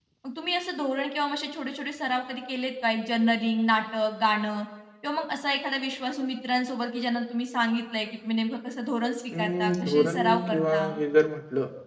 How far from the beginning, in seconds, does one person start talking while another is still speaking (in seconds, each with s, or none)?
9.3 s